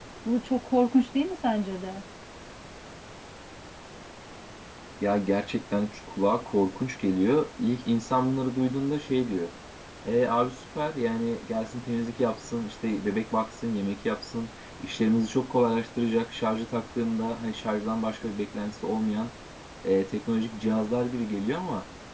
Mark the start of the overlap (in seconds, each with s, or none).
none